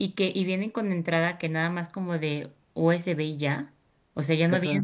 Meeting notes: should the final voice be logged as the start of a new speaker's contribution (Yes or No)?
No